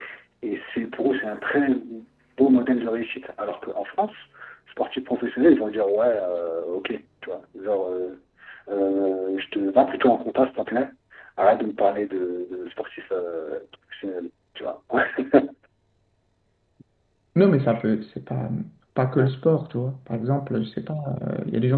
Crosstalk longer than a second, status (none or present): none